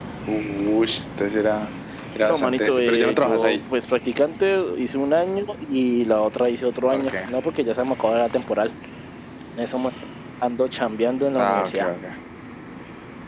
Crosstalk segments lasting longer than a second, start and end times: 2.2-3.6

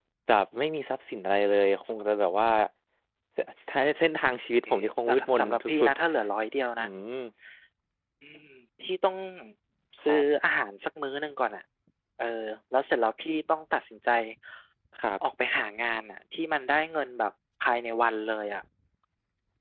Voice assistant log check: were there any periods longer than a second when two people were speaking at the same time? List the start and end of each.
4.7-5.9

